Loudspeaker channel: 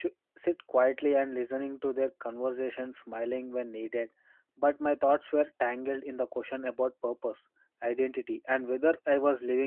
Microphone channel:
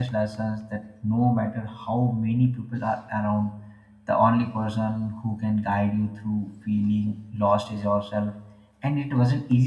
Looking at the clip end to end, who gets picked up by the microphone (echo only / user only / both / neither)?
user only